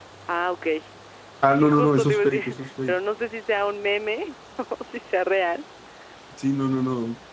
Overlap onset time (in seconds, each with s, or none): 1.6 s